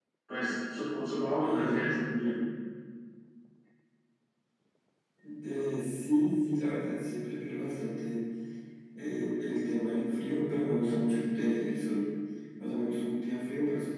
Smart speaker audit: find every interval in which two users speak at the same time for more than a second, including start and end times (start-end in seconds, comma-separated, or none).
none